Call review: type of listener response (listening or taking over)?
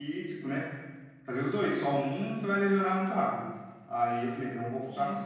listening